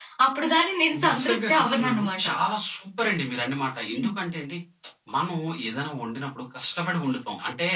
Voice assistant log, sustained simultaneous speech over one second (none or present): present